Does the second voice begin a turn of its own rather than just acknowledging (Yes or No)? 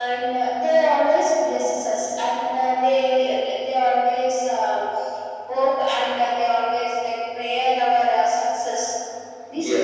No